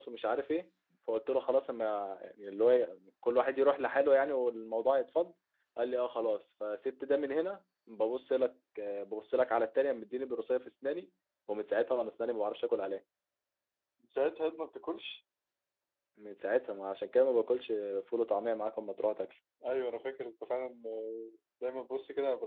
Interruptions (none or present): none